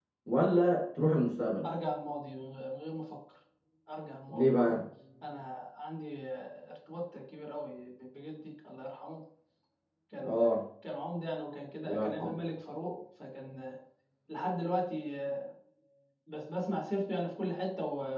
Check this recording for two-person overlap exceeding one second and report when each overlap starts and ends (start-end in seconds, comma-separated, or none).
none